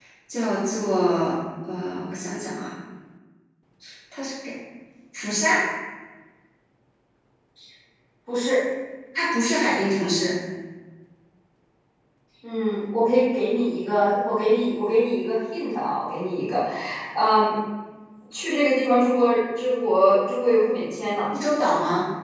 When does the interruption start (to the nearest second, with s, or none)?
none